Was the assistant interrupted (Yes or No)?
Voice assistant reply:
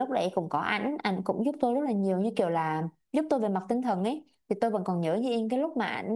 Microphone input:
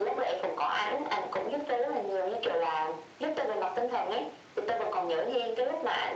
No